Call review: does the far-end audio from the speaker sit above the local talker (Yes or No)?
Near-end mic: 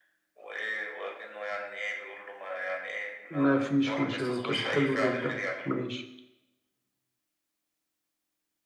No